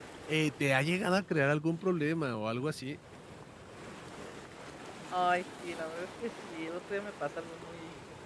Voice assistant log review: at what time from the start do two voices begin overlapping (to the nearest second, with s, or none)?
none